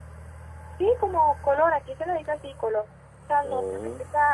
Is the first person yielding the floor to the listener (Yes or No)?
No